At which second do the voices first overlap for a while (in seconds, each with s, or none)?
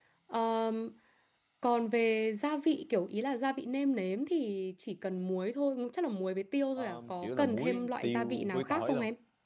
6.8 s